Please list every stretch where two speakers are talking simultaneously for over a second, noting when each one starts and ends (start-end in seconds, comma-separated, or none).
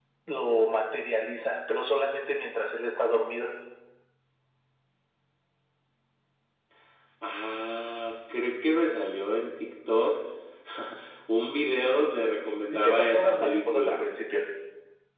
12.7-14.0